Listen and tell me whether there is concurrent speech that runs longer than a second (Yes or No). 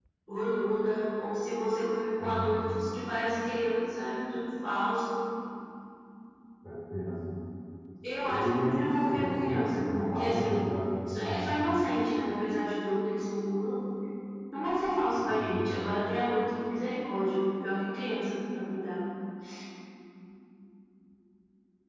Yes